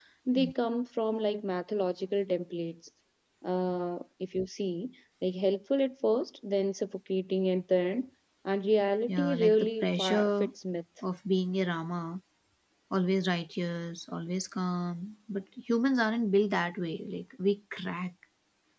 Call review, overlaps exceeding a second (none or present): present